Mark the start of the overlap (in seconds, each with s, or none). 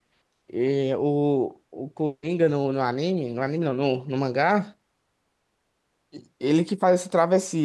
none